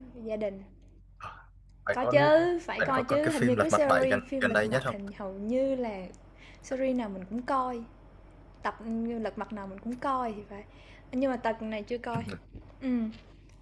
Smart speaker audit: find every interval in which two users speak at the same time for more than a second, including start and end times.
2.8-4.9

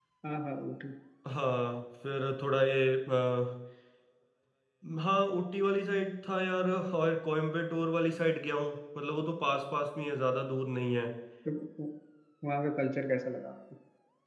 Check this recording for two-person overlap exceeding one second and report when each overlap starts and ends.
none

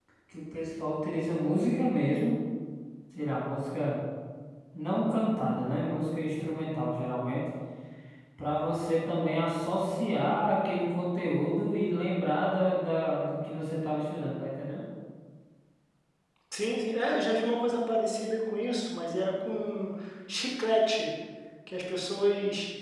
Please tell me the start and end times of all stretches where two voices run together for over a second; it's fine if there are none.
none

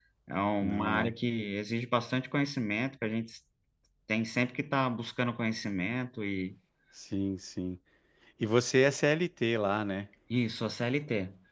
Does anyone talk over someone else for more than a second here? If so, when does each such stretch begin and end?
none

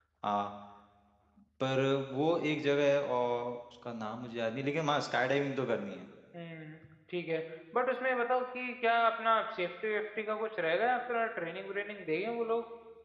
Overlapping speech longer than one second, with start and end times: none

